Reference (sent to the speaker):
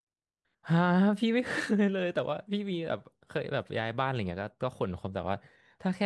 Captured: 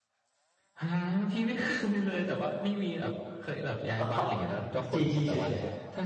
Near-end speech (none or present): present